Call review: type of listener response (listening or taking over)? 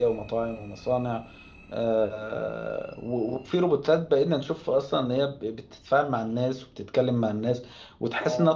listening